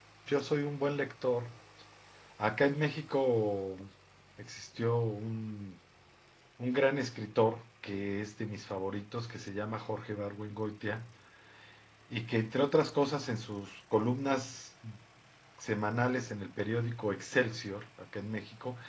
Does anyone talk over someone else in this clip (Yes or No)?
No